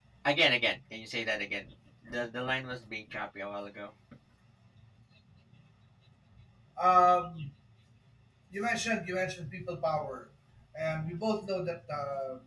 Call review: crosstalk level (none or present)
none